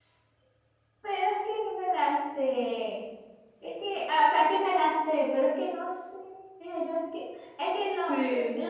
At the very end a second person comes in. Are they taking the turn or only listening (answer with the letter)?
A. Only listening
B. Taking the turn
A